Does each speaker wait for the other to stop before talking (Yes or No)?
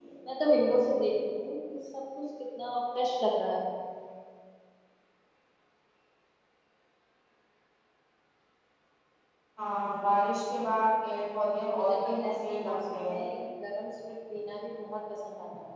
No